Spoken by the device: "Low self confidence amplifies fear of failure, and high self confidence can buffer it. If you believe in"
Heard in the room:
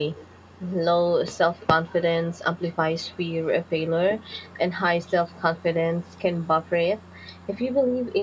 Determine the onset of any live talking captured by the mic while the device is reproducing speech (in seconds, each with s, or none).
none